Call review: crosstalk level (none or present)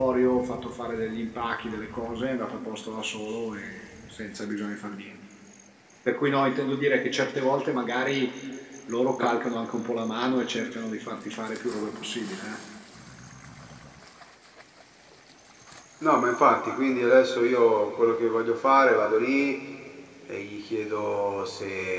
none